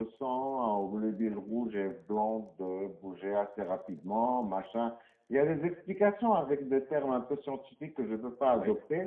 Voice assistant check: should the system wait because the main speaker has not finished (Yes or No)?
Yes